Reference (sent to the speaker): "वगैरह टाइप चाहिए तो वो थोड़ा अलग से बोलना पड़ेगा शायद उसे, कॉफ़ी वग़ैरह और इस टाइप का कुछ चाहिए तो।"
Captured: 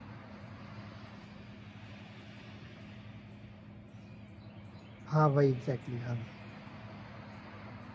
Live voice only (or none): हाँ वही एग्जैक्टली exactly,